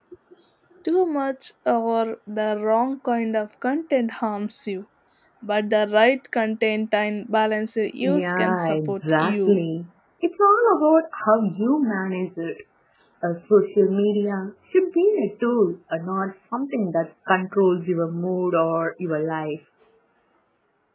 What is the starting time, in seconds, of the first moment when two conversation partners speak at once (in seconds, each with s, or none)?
8.0 s